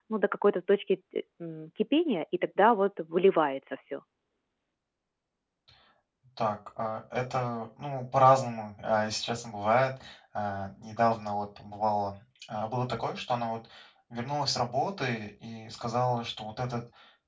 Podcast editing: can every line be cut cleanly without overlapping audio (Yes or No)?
Yes